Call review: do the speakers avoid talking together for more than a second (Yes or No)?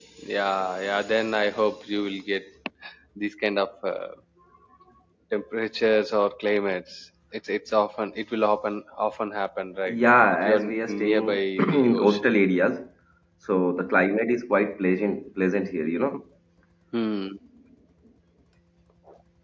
No